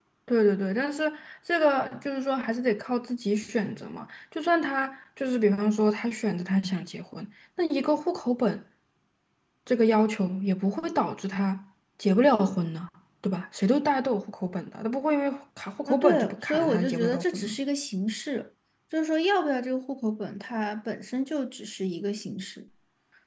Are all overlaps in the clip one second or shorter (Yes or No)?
No